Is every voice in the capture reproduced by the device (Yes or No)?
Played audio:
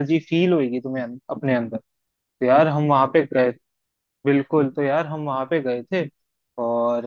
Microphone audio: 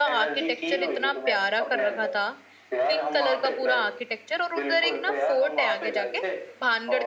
No